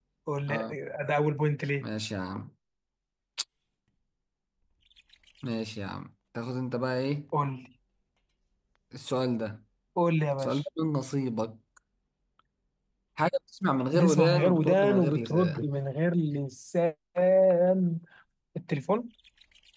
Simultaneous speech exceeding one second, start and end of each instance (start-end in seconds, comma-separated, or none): 13.9-15.6